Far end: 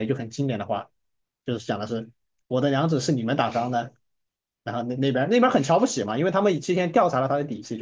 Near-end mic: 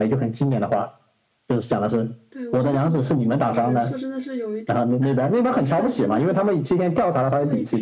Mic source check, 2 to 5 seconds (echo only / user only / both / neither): both